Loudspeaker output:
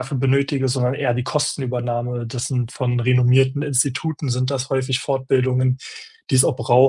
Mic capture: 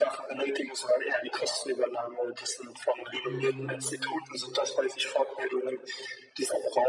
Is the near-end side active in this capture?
Yes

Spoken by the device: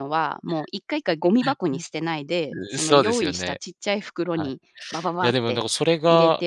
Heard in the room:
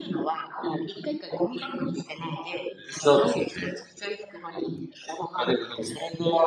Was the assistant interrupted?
No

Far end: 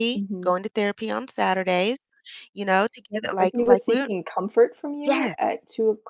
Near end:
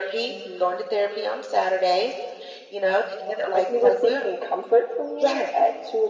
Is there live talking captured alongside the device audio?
No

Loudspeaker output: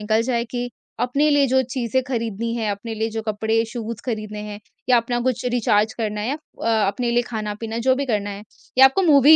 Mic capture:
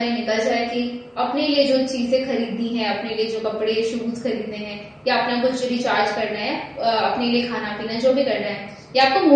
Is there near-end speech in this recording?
No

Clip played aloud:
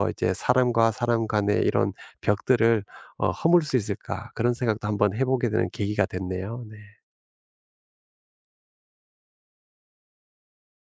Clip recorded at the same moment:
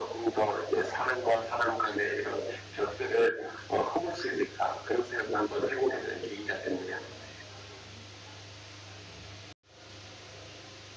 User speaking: No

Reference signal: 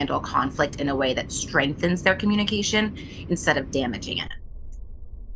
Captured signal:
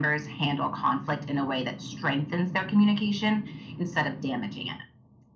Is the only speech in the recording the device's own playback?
Yes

